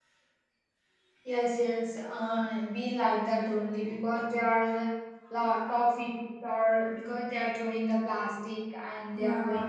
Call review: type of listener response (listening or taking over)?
listening